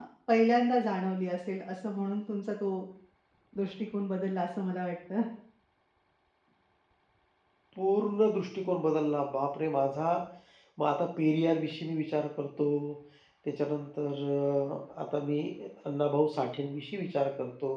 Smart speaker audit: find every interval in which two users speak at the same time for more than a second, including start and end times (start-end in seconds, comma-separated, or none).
none